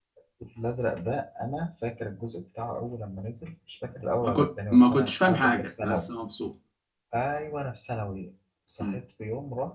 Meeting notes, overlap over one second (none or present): present